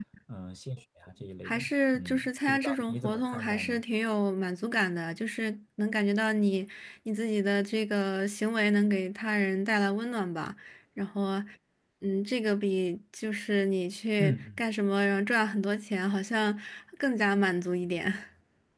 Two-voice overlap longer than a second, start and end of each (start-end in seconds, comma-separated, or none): 1.4-3.8